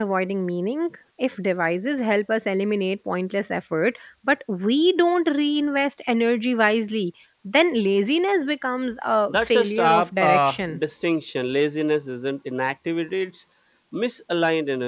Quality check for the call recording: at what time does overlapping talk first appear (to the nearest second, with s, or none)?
9 s